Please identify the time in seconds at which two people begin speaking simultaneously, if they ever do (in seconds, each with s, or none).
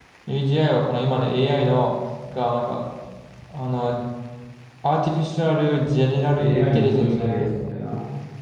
6.2 s